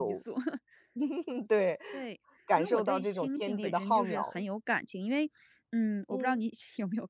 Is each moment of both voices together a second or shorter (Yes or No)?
No